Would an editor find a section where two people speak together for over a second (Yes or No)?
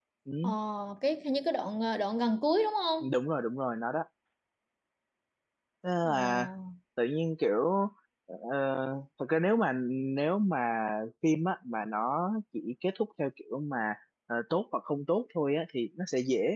No